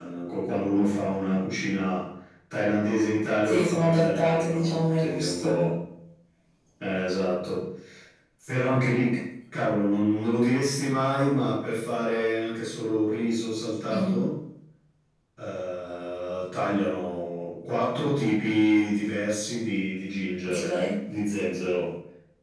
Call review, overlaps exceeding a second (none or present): present